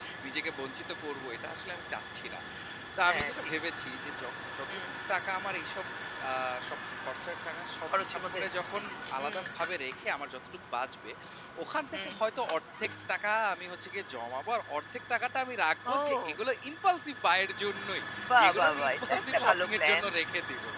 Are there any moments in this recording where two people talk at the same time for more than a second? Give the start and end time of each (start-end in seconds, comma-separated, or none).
18.4-20.0